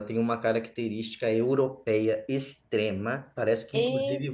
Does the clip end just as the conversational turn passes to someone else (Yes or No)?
No